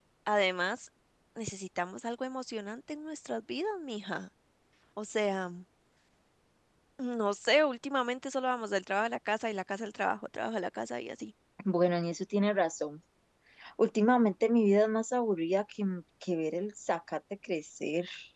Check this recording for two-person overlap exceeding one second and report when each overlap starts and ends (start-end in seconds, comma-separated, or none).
none